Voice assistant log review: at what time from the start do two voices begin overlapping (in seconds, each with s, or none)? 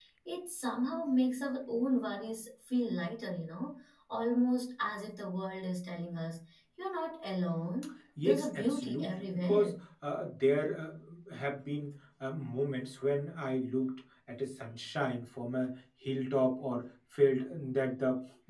8.2 s